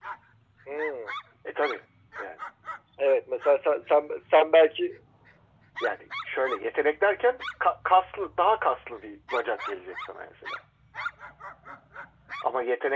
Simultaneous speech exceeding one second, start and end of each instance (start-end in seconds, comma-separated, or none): none